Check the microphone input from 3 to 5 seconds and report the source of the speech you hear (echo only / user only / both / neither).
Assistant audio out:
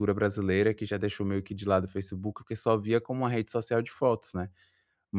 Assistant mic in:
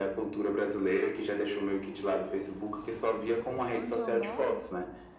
both